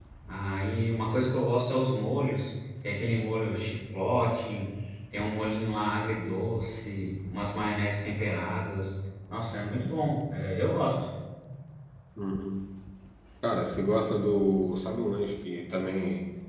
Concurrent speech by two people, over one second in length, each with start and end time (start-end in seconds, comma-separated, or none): none